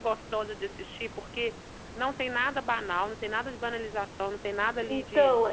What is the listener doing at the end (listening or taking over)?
taking over